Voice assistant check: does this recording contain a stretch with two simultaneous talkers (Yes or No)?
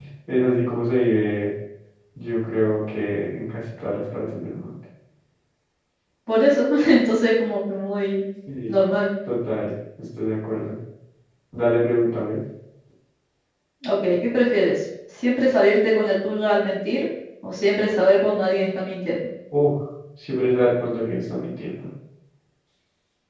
No